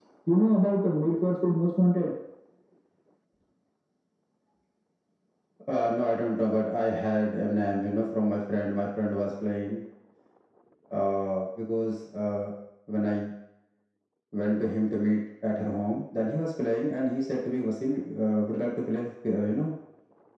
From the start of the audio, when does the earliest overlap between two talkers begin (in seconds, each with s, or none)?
none